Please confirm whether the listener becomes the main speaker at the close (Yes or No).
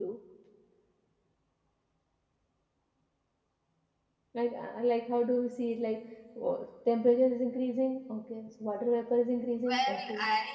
Yes